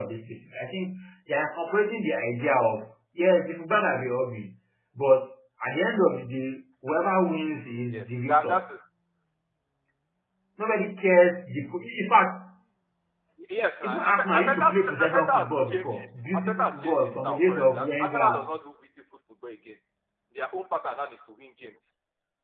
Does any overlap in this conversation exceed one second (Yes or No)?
Yes